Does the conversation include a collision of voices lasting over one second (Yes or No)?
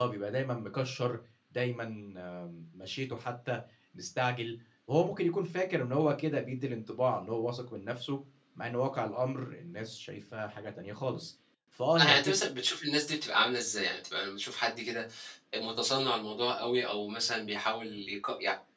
No